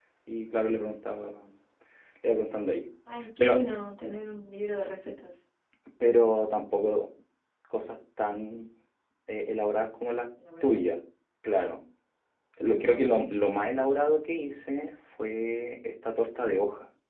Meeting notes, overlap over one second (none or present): none